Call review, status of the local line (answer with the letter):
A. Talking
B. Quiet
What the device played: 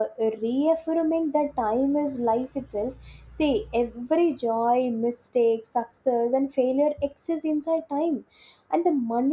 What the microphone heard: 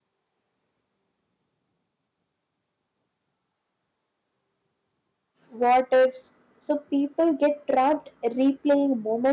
A